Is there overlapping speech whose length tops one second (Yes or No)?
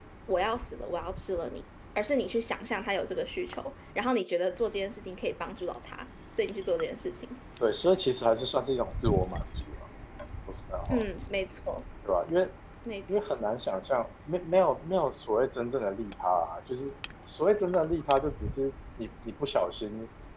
No